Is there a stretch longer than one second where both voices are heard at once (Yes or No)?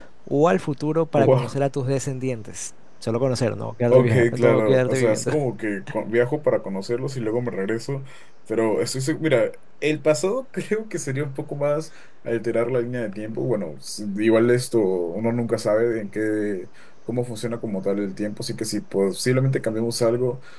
Yes